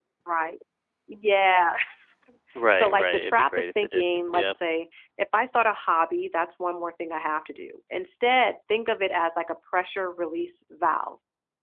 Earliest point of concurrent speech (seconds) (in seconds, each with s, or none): 2.8 s